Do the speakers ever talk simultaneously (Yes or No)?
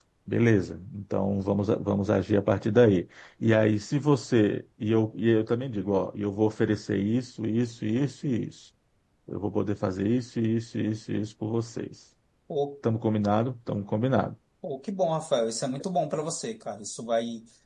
No